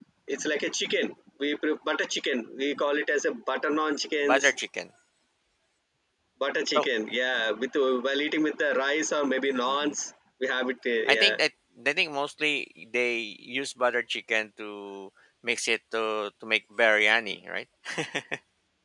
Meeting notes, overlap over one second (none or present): none